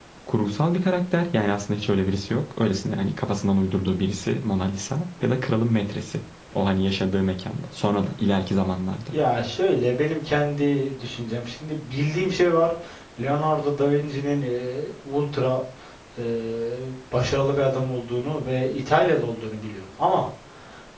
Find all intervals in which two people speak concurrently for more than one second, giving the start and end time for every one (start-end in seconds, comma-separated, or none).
none